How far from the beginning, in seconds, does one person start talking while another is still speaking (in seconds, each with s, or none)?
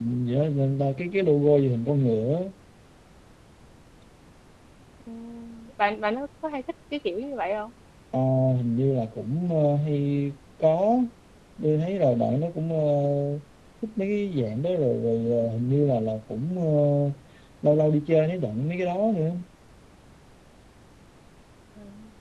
none